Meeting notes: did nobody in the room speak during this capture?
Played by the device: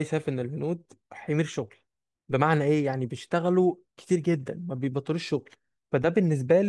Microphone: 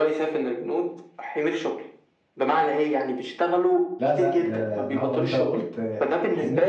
No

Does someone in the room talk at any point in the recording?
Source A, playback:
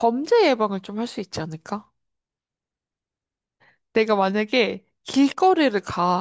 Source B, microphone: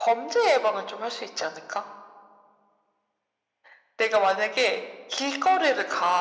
No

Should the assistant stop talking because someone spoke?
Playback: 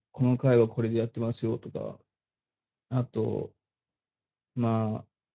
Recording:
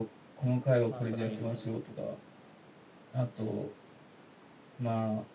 Yes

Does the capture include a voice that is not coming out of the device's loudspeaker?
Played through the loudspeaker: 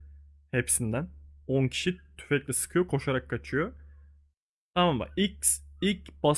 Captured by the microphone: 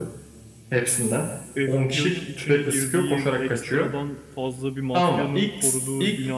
Yes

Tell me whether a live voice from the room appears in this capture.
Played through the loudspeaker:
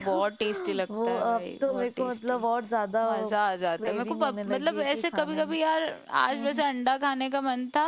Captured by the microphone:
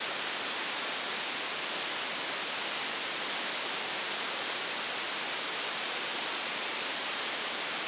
No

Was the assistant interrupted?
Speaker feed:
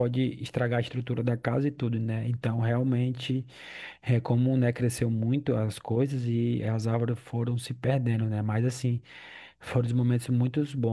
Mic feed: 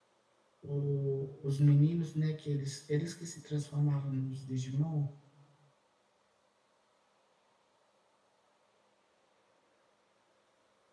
Yes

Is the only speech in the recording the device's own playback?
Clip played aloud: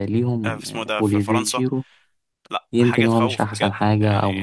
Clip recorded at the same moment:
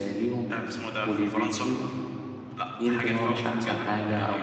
Yes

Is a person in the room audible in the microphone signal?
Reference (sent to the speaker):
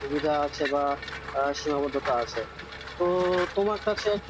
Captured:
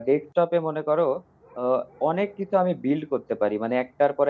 Yes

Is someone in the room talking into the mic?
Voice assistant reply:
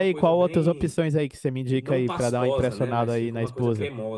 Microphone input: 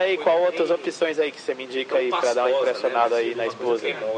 Yes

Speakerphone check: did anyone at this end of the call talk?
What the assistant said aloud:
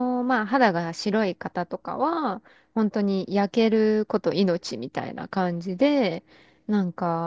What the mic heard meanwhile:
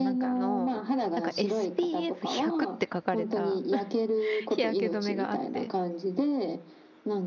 Yes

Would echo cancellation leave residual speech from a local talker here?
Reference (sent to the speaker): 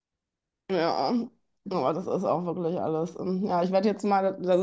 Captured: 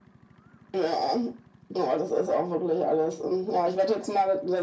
No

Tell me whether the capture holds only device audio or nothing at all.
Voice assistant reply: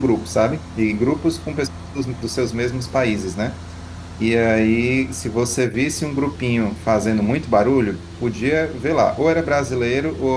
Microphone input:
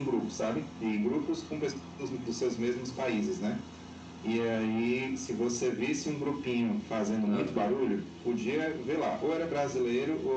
No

